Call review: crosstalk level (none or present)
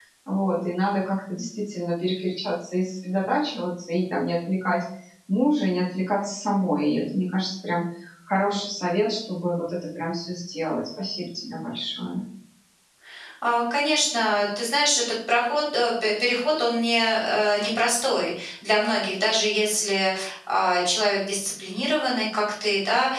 none